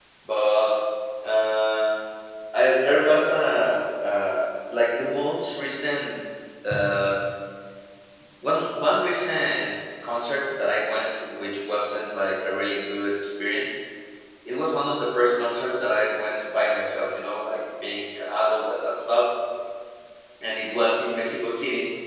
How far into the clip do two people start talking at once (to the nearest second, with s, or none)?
none